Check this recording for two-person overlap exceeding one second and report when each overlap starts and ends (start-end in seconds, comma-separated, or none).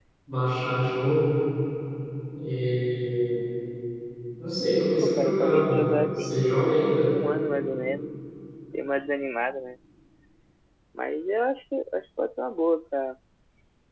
5.0-6.6